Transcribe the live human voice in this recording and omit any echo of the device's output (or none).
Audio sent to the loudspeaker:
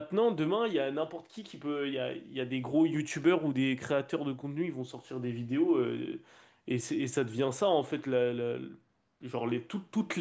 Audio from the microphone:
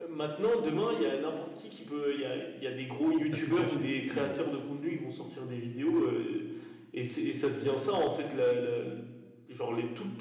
T'as tout gâché. Mais bon.